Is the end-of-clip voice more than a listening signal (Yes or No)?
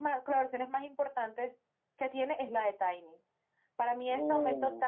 No